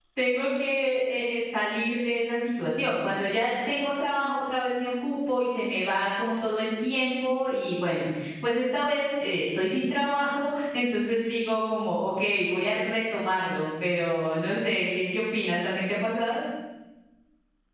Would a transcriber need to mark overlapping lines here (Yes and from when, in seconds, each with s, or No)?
No